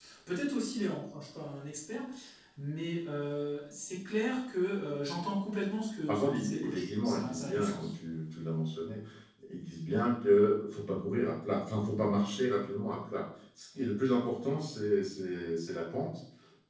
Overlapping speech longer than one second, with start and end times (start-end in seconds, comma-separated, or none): 6.1-7.9